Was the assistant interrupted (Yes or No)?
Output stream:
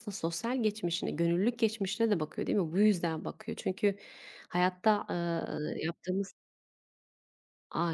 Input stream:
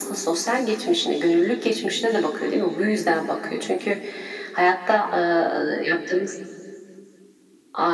No